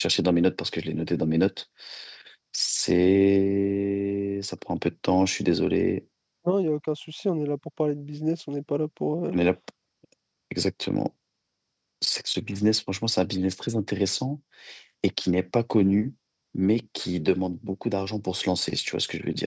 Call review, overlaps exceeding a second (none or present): none